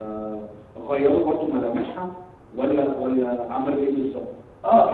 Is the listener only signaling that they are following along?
No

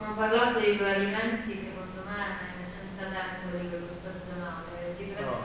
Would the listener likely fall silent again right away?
Yes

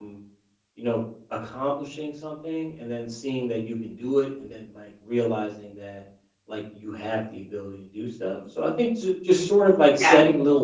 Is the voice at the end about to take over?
No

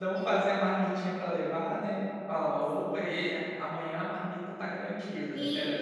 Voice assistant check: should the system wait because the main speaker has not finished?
No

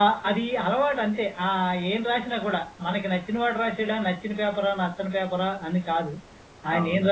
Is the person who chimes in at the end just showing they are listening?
Yes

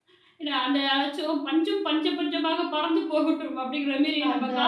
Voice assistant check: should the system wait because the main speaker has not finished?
Yes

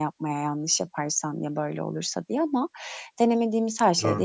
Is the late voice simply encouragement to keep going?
Yes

